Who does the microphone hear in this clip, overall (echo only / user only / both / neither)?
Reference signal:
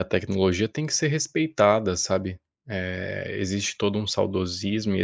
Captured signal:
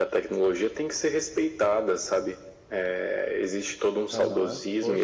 both